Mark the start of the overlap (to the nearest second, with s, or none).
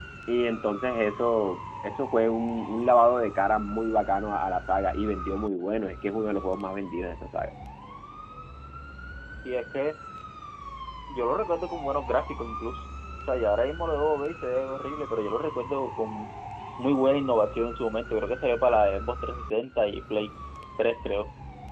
none